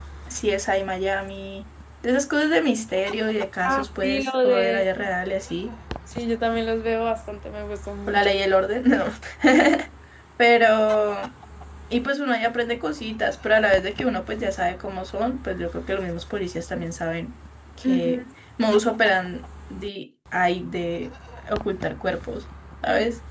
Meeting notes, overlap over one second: present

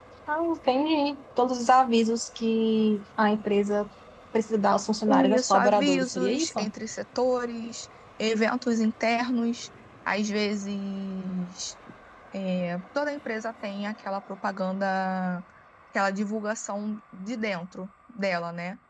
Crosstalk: present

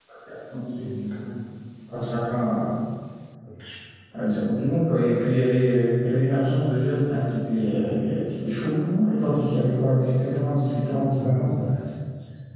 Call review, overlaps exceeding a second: none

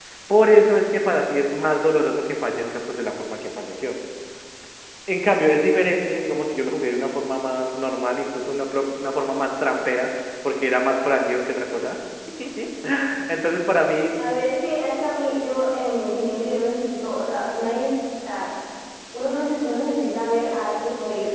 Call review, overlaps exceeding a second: none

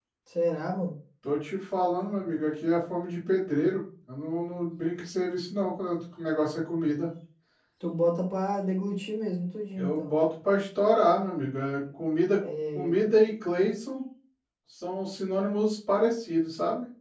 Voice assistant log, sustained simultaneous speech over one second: none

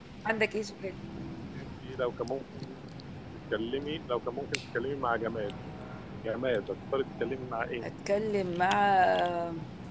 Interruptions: none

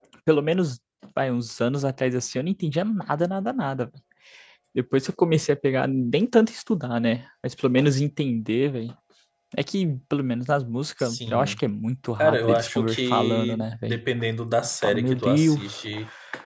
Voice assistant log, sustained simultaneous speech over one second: present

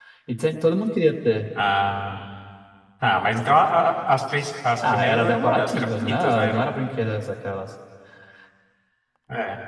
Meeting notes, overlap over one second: present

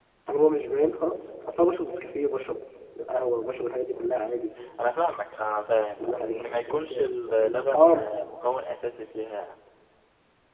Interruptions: present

